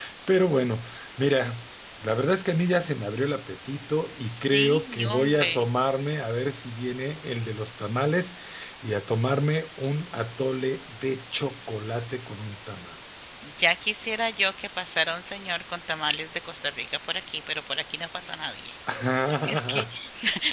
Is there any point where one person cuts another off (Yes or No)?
Yes